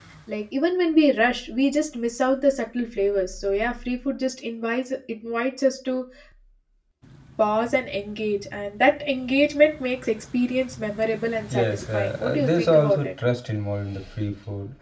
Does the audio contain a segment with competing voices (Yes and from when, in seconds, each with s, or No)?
Yes, from 11.5 s